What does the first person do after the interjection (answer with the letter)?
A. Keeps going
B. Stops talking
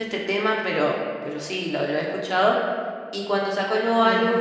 A